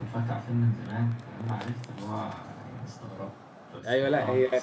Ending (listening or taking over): taking over